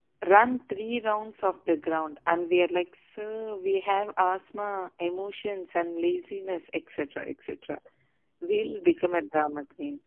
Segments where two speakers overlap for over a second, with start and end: none

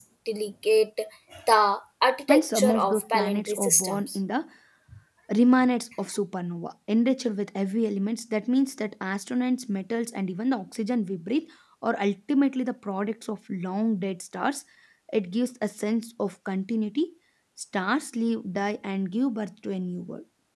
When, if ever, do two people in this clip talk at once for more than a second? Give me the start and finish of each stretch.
2.3-4.2

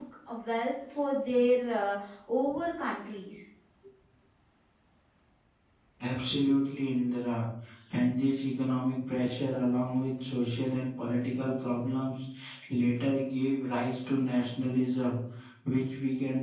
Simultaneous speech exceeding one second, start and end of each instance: none

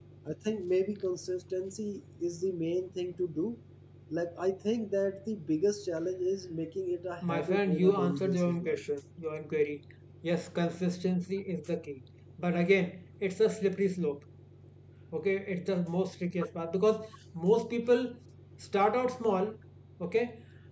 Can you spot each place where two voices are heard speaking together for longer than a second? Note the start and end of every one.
7.2-8.8

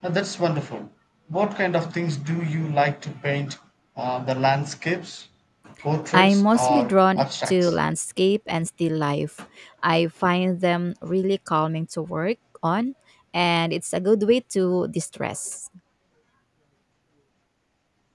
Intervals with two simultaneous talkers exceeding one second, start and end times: 6.1-7.8

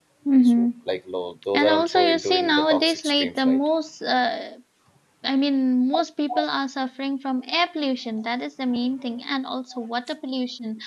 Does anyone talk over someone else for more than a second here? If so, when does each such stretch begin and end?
1.5-3.6

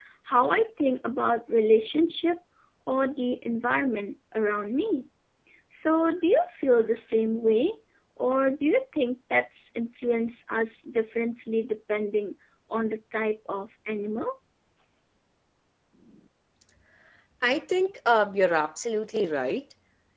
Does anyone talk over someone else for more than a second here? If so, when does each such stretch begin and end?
none

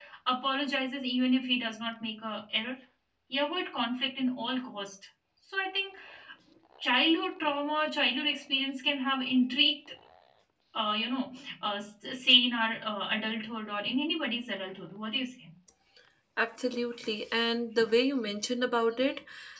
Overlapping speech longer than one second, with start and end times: none

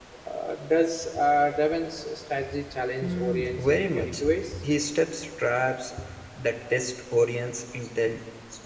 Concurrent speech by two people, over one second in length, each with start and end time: 3.0-4.5

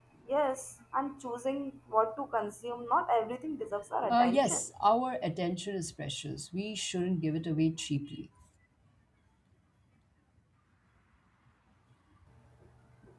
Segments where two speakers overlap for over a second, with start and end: none

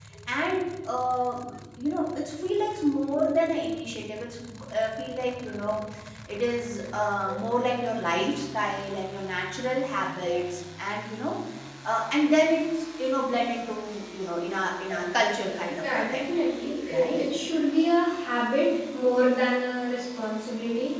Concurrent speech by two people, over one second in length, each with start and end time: none

